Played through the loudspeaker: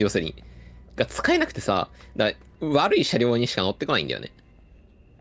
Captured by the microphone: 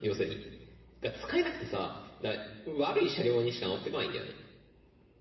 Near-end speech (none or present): none